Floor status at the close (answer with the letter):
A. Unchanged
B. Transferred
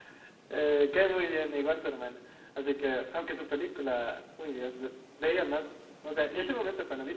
A